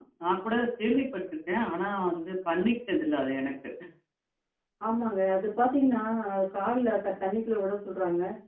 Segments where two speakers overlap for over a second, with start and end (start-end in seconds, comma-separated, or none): none